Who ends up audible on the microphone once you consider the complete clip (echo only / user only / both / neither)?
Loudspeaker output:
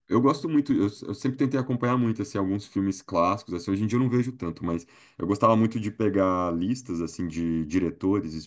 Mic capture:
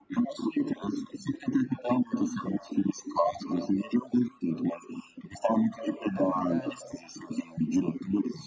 both